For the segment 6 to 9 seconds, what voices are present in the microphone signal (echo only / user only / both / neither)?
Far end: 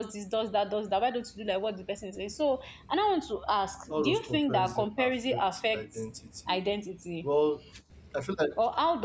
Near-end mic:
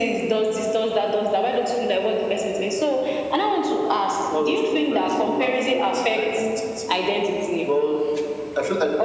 echo only